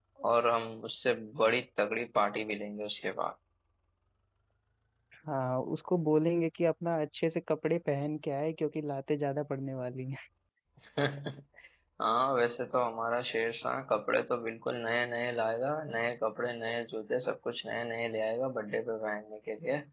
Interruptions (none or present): none